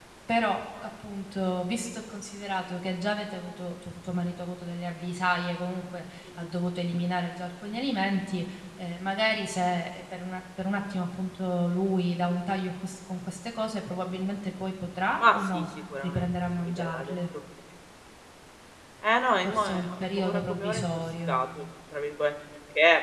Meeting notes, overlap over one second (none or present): present